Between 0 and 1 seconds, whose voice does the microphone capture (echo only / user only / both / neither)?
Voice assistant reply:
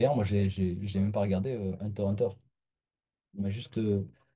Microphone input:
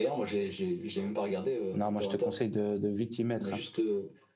echo only